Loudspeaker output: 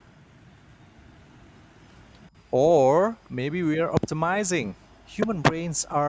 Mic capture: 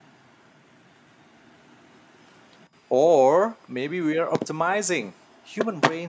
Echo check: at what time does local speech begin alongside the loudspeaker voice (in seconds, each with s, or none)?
none